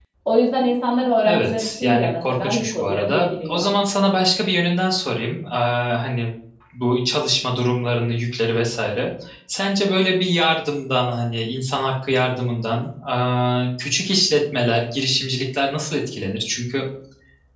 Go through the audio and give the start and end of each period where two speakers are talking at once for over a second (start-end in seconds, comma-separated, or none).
1.2-3.7